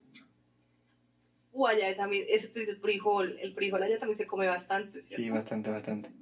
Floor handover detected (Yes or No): Yes